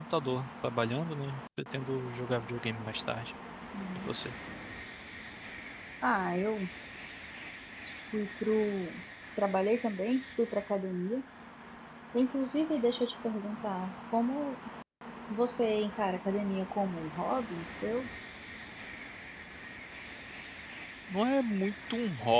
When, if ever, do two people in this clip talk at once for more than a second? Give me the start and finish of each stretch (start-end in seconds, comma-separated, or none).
none